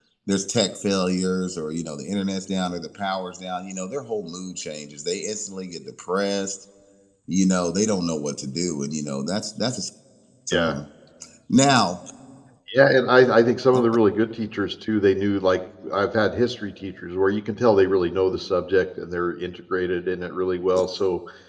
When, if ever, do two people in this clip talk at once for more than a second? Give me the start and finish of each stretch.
none

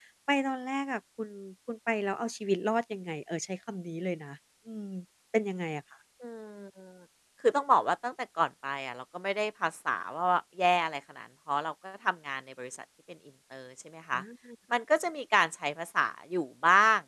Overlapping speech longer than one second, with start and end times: none

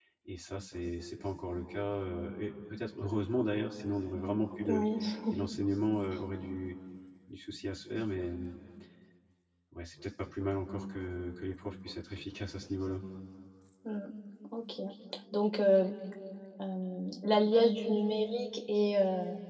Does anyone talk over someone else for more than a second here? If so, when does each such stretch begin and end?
none

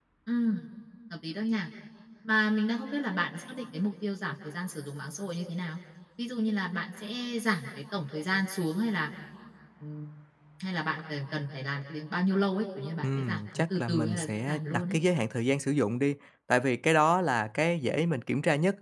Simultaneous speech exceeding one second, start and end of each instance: 13.0-15.0

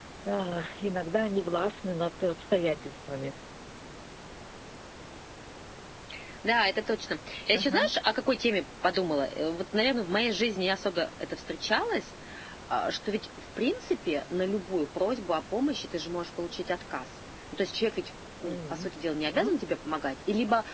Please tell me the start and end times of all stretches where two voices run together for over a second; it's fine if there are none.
none

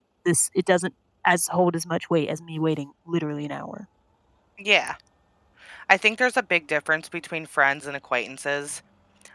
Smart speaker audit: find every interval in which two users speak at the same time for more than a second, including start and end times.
none

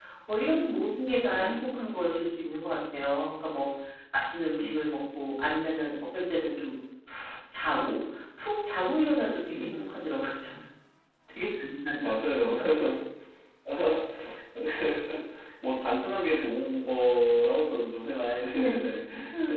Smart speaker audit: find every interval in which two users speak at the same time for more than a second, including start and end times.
none

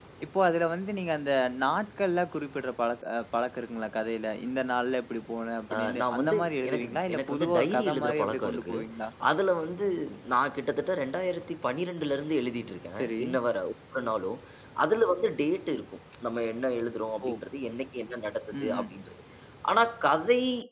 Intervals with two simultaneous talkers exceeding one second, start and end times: 5.7-8.8

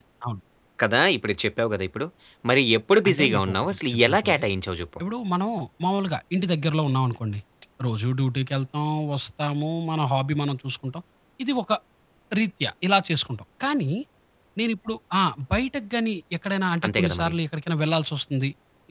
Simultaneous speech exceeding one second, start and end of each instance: 3.1-4.4

